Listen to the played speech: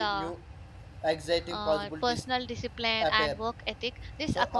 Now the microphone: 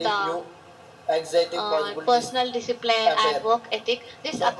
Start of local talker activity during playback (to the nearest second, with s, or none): none